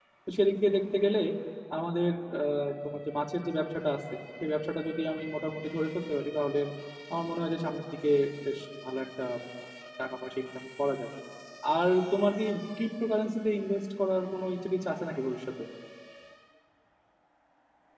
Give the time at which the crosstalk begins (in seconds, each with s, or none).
none